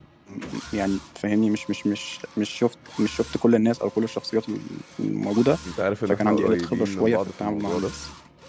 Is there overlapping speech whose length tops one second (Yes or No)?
Yes